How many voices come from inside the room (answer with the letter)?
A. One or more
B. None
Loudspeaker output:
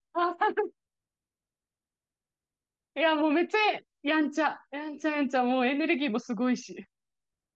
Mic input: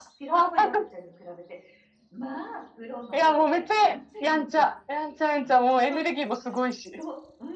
A